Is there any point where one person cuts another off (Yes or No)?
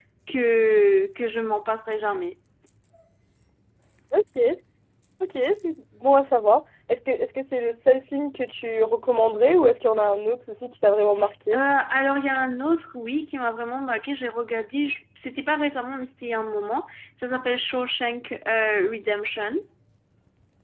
No